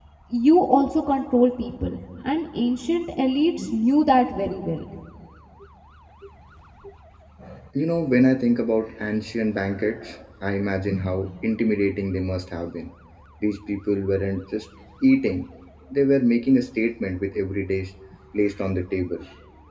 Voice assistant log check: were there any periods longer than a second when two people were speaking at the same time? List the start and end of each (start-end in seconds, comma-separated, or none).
none